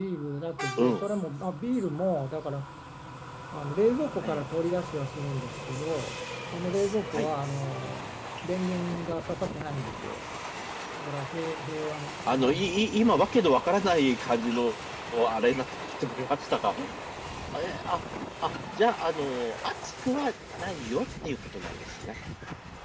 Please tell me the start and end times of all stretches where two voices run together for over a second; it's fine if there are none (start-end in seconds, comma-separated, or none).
none